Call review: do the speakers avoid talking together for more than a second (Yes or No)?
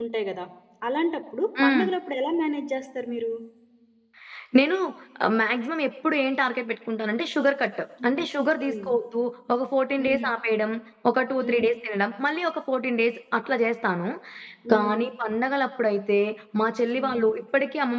Yes